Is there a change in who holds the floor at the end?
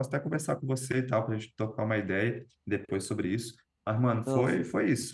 No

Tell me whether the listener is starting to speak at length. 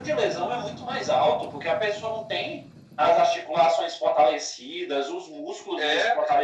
No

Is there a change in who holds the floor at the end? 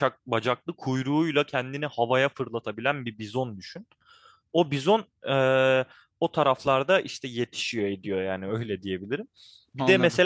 No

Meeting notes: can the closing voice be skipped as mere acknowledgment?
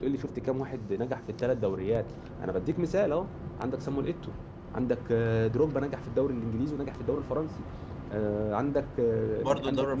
No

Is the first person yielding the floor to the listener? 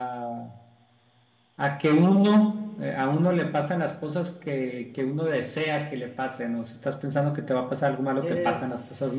Yes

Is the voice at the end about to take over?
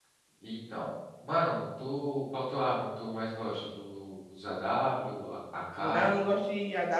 Yes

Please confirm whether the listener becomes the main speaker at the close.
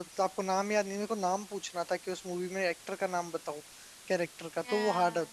Yes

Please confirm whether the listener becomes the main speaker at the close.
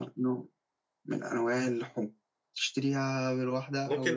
Yes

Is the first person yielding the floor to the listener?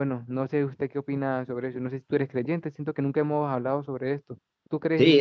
Yes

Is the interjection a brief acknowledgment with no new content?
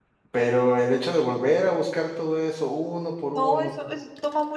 No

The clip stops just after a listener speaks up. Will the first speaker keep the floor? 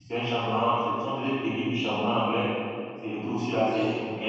Yes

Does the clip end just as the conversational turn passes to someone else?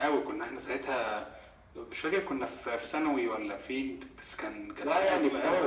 Yes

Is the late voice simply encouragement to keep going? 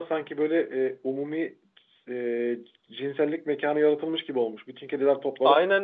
No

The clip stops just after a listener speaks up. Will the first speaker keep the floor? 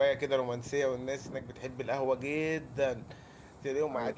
Yes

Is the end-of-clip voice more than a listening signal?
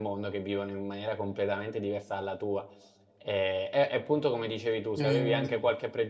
No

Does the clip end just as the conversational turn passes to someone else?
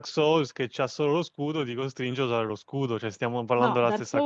Yes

